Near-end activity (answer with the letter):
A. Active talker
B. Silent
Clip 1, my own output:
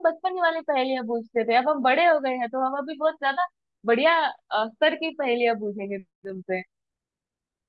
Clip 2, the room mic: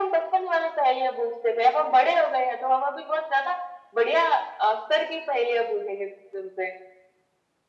B